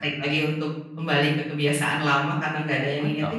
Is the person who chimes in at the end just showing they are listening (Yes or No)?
No